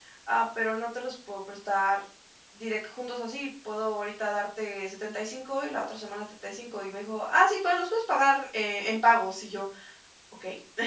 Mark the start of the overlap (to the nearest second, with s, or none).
none